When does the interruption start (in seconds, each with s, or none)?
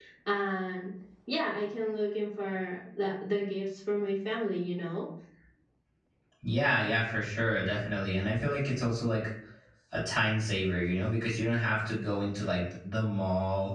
none